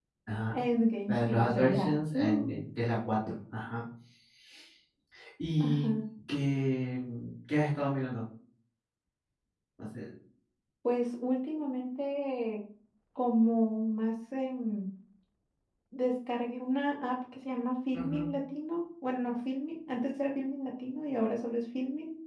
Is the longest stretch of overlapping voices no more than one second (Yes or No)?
No